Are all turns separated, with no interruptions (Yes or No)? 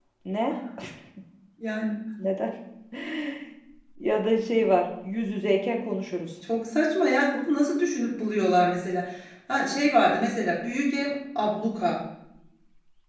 Yes